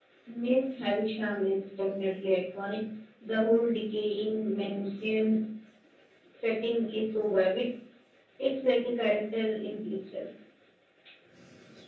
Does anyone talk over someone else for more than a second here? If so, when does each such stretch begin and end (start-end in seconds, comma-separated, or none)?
none